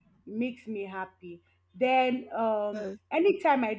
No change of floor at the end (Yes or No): Yes